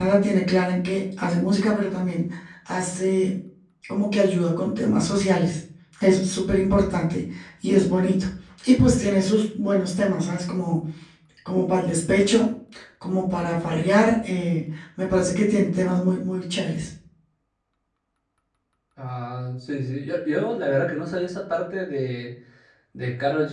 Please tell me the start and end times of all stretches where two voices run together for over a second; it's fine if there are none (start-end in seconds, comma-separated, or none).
none